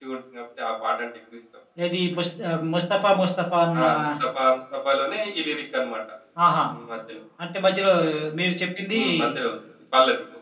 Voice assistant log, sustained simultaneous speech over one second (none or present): none